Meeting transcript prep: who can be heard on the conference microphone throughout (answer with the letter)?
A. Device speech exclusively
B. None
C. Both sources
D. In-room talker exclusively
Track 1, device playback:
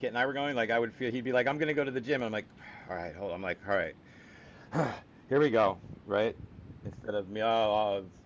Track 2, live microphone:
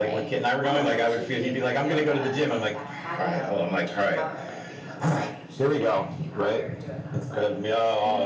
C